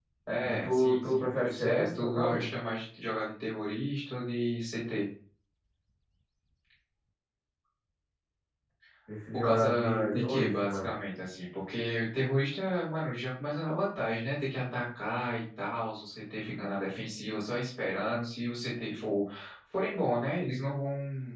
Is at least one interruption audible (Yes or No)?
Yes